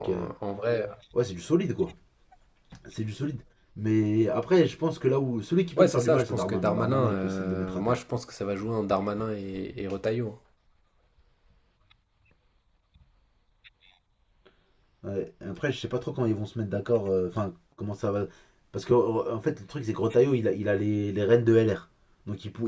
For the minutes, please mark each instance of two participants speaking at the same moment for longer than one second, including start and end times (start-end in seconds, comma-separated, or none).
5.8-8.0